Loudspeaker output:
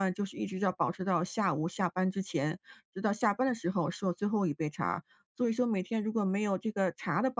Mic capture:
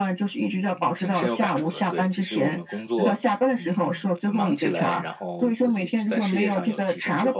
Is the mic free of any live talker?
No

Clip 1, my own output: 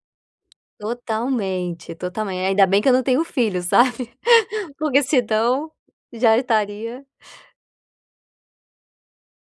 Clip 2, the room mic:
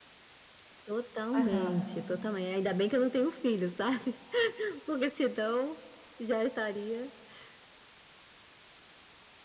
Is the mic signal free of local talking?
No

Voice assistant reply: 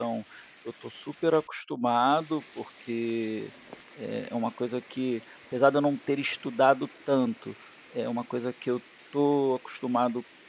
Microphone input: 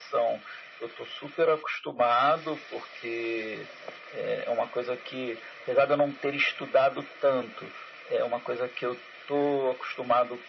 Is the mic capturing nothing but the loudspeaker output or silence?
Yes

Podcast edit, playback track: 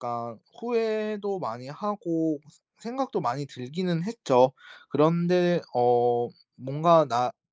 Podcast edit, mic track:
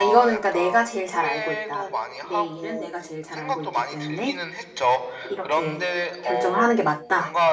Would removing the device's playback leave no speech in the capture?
No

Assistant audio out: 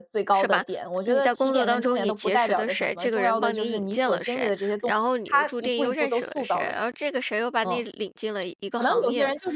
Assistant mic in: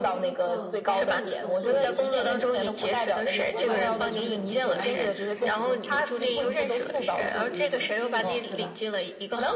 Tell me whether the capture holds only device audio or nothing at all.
No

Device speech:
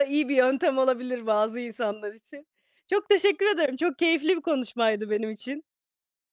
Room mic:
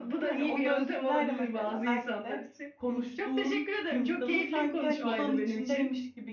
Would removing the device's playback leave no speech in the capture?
No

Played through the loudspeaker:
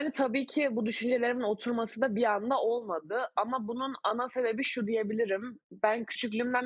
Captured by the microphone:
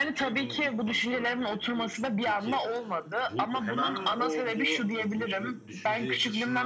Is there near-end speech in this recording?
Yes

